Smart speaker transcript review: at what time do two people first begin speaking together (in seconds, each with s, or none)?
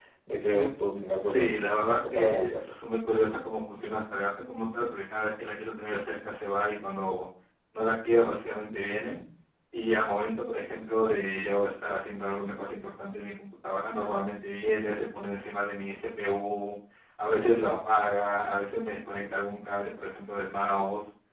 0.5 s